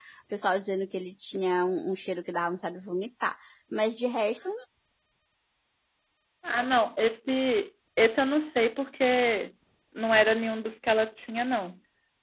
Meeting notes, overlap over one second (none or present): none